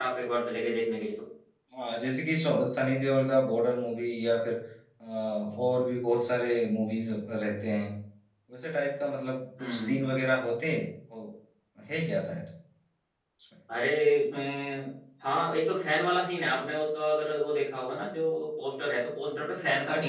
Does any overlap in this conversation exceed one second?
No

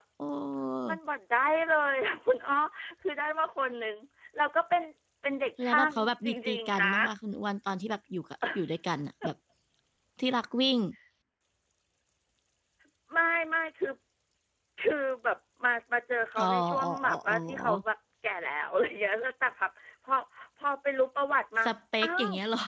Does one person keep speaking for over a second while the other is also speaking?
Yes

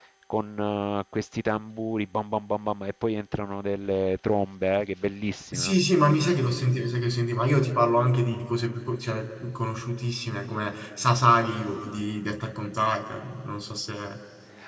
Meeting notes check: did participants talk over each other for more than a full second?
No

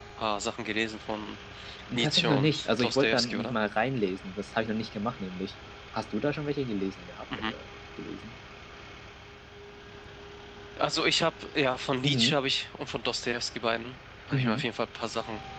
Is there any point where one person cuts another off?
Yes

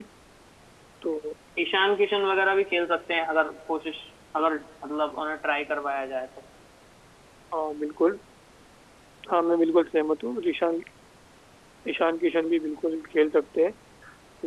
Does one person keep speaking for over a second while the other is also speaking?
No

